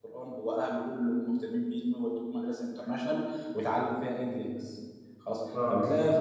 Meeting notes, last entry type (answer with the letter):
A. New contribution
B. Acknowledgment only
B